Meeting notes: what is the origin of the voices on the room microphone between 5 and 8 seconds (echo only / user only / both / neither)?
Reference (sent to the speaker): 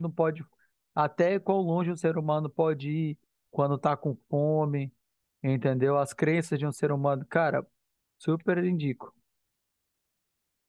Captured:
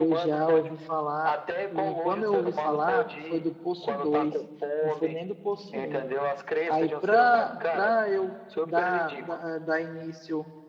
both